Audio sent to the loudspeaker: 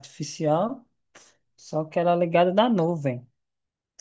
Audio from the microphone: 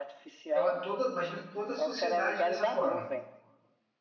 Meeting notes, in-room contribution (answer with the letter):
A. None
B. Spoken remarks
B